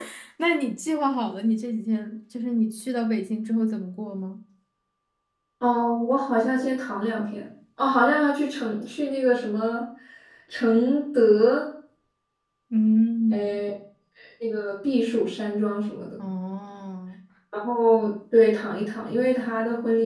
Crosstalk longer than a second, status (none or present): none